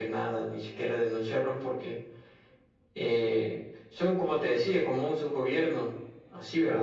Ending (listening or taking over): listening